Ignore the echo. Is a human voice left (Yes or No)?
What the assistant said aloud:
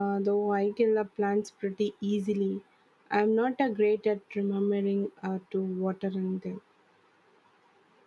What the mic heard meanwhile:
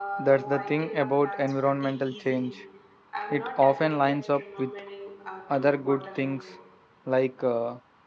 Yes